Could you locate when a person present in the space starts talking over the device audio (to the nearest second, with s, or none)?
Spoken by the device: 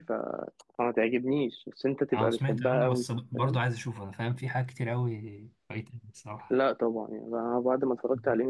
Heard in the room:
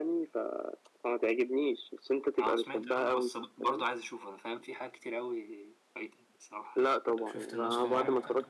7 s